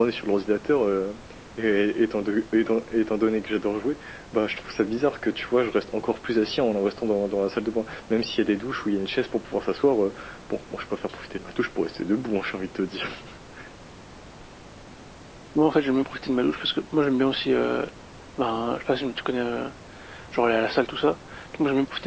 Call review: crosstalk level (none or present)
none